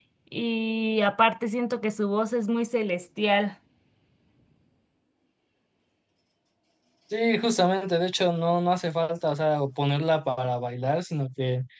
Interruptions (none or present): none